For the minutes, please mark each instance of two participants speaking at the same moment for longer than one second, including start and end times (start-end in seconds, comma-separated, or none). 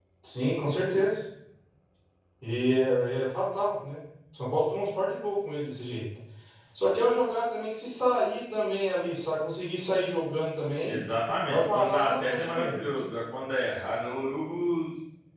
11.5-12.8